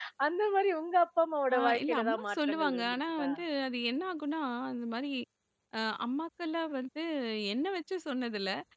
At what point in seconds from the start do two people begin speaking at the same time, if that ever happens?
2 s

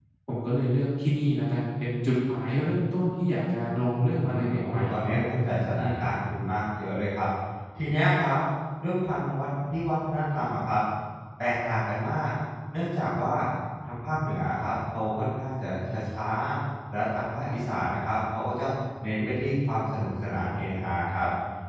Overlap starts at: 4 s

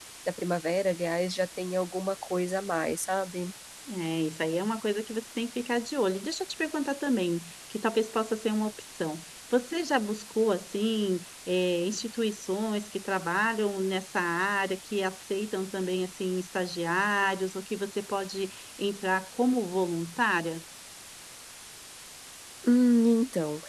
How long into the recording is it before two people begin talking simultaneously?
none

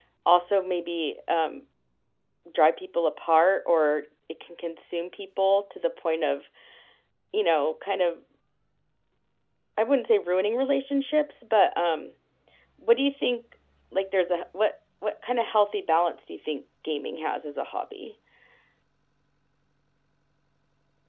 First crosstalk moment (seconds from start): none

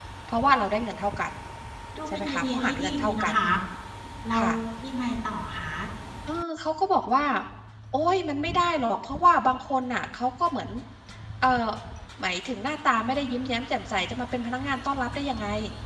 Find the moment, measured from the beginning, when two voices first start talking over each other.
2 s

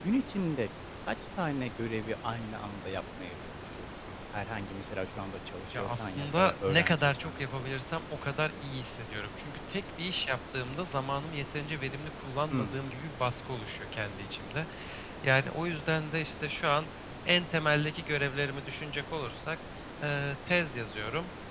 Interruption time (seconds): 6 s

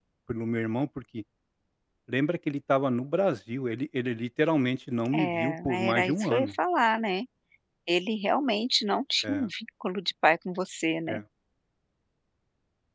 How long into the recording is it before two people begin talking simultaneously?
5 s

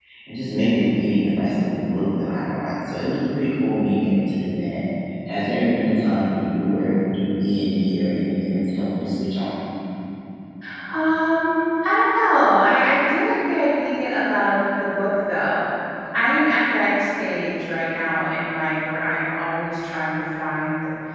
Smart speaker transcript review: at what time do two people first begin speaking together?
none

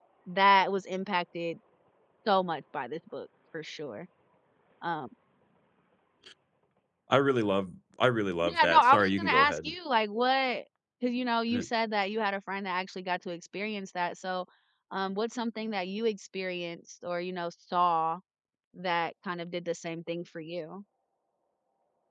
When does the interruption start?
8 s

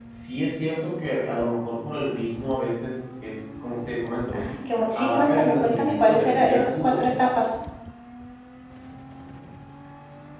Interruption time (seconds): 5 s

